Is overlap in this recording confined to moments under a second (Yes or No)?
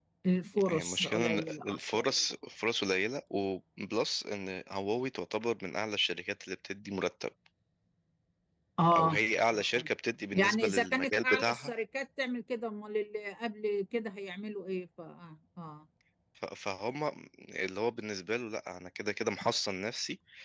No